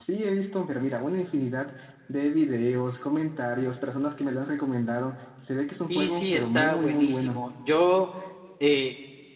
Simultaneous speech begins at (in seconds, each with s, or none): 5.9 s